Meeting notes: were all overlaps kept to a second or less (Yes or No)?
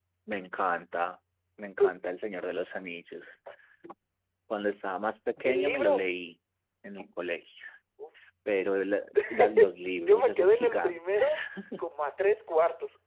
No